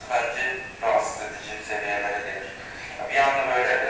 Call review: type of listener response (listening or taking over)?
listening